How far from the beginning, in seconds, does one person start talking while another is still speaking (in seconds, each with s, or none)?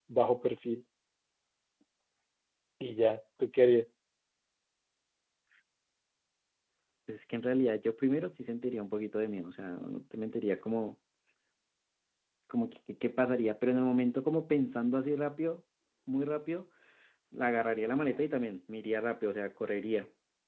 none